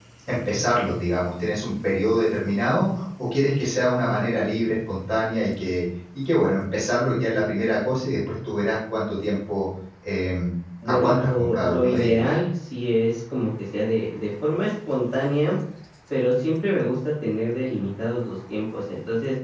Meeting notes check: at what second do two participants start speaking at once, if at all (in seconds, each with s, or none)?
10.8 s